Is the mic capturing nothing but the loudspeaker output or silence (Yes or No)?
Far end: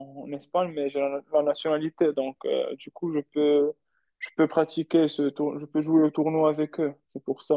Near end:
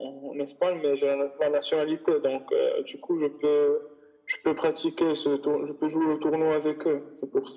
Yes